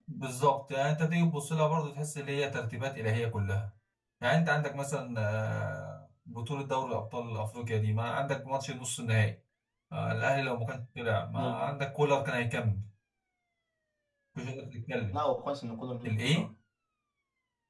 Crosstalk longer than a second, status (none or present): none